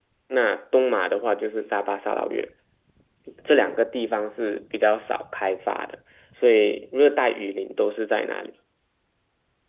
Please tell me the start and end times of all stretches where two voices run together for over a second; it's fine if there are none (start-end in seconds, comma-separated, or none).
none